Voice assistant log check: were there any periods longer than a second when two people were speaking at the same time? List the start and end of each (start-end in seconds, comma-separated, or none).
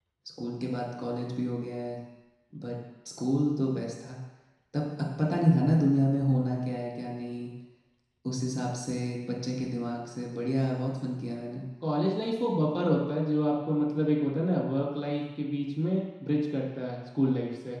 none